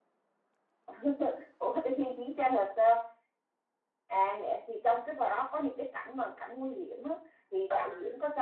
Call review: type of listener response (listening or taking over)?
listening